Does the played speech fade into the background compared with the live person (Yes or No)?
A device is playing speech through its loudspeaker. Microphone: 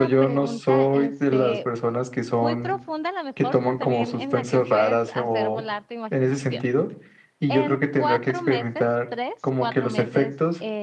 No